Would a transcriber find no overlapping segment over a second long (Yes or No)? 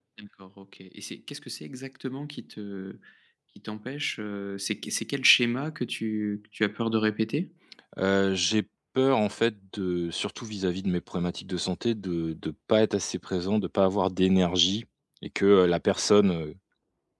Yes